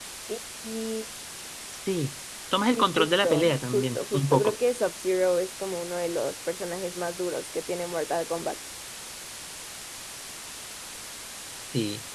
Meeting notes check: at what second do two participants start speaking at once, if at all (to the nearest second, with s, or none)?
3 s